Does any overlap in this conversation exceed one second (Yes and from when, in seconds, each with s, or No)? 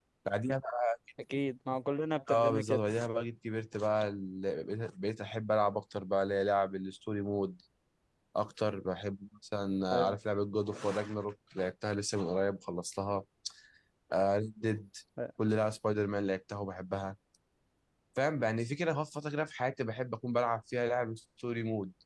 No